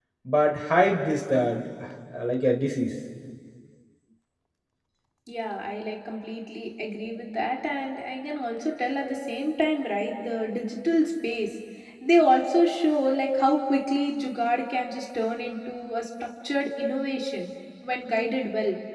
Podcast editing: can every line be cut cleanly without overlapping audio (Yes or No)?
Yes